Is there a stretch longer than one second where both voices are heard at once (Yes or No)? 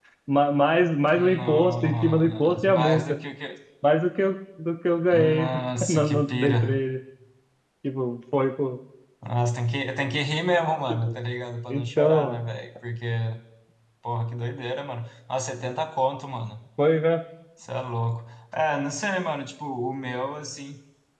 Yes